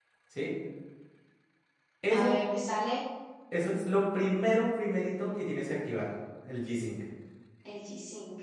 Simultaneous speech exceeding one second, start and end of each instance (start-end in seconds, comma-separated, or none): none